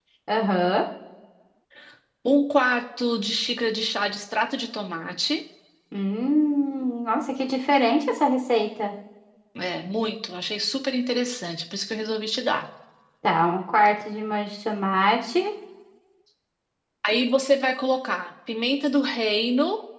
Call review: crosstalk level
none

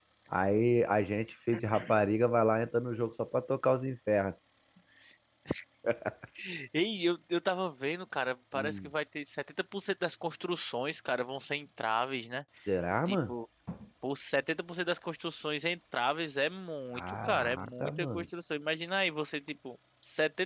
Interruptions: present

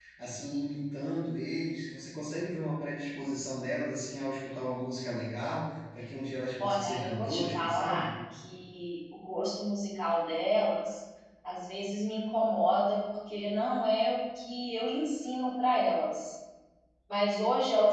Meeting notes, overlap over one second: present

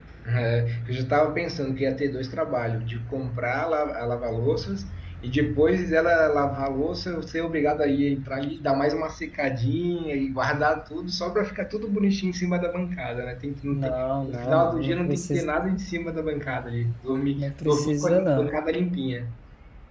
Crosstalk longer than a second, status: present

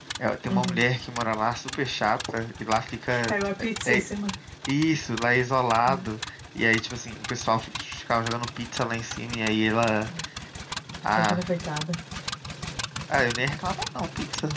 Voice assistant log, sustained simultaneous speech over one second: none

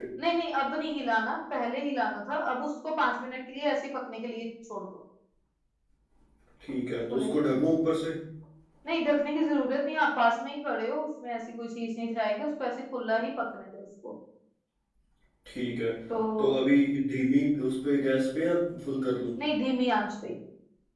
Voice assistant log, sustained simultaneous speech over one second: none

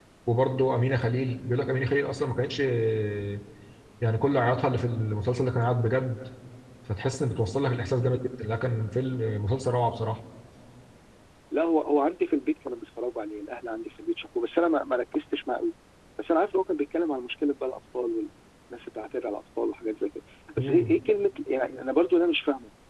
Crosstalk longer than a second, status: none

